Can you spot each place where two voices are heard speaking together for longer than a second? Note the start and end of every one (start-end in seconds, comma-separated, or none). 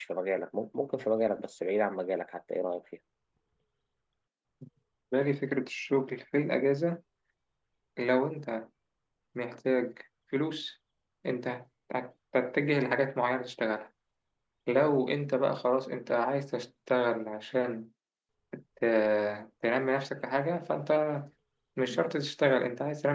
none